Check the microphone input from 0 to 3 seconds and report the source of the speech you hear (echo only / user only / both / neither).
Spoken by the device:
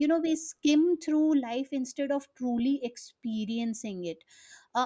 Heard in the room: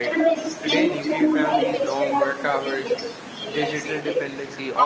both